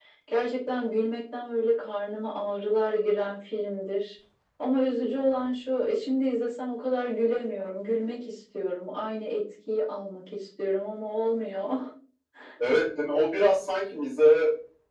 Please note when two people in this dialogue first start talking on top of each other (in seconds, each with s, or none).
none